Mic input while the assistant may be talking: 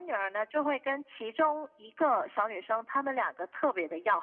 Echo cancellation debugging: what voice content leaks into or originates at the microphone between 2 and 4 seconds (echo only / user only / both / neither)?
echo only